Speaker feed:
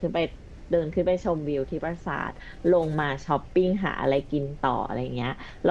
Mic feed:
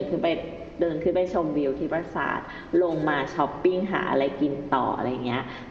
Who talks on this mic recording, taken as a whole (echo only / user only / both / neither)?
echo only